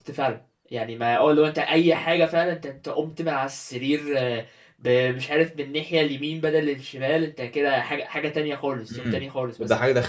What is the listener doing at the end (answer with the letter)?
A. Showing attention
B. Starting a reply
B